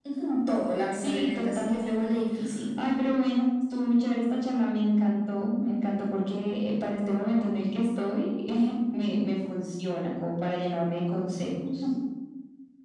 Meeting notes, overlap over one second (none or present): present